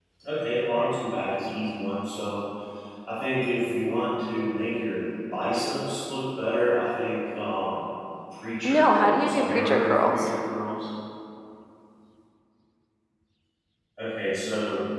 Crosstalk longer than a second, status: present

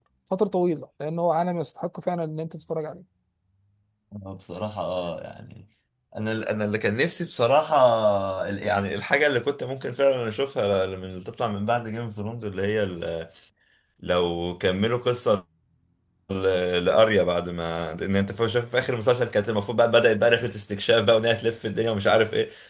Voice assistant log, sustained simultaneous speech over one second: none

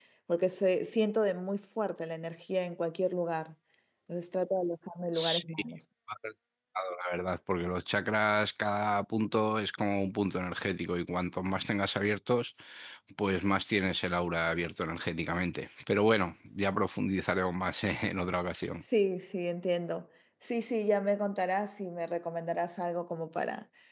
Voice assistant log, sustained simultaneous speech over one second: none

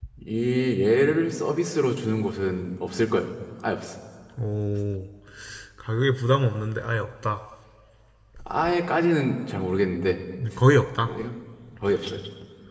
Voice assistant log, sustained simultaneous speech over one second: none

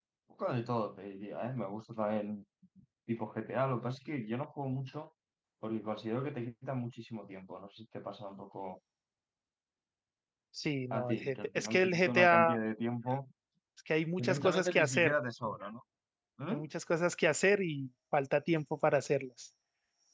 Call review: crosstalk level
present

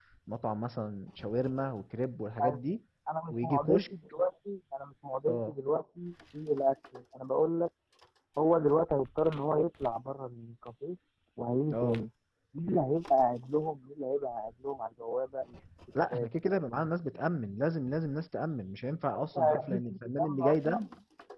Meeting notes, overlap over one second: present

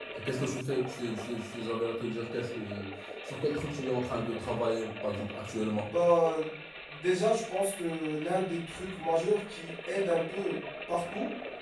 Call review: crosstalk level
none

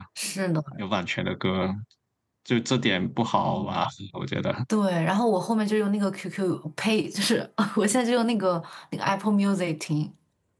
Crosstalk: none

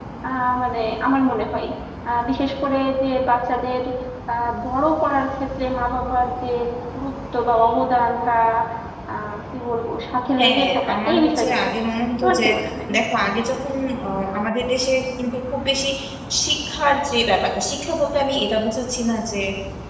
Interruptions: present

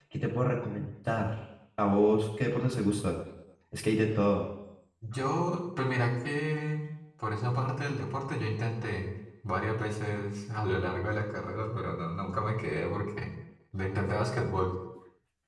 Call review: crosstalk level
none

